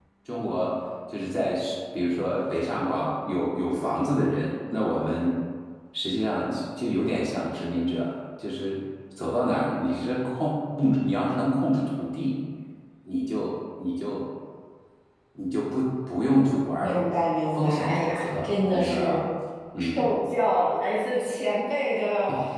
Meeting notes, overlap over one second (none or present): present